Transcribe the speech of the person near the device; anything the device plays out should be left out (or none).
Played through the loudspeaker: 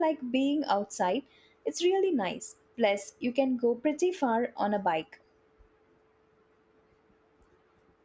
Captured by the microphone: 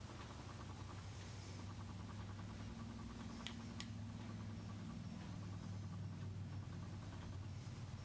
none